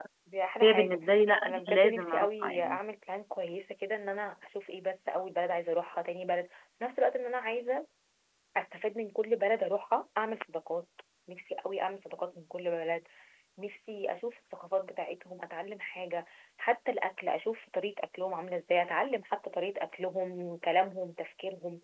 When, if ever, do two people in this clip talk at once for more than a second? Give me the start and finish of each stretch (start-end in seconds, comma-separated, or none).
1.5-2.8